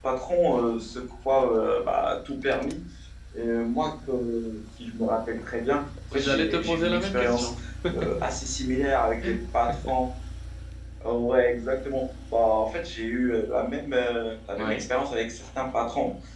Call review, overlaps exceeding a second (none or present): present